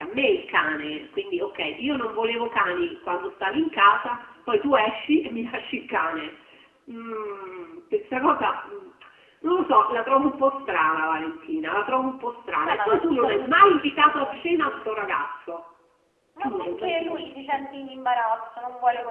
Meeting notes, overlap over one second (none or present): present